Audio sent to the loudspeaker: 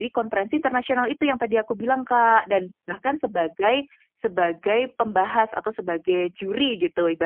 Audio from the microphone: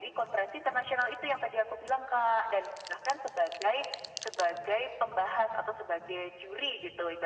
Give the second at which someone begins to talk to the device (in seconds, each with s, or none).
none